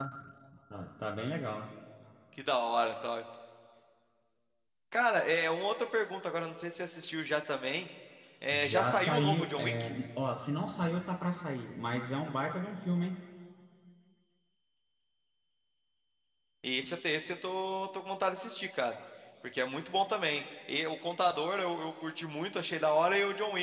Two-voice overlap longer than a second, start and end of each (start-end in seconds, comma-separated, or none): 8.5-9.9